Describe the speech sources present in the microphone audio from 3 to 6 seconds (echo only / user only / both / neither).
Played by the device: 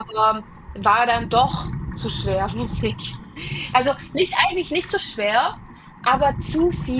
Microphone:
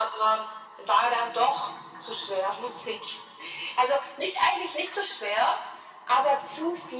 echo only